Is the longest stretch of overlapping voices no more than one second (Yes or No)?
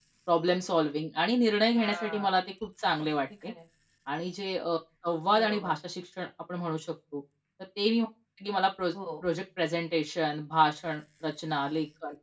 Yes